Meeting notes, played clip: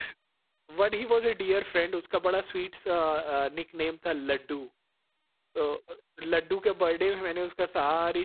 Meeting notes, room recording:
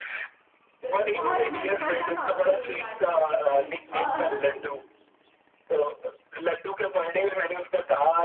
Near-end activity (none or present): present